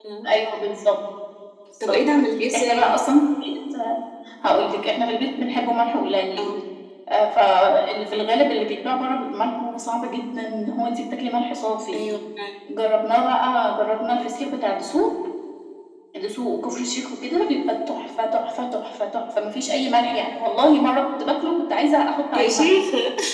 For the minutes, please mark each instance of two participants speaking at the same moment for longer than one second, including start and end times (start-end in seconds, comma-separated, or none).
none